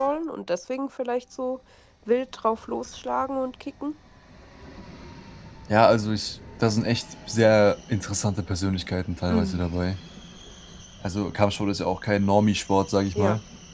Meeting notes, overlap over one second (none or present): none